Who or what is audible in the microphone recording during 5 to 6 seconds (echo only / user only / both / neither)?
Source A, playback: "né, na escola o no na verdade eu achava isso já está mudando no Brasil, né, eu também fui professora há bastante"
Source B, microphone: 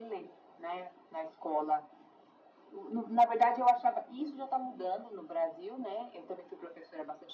echo only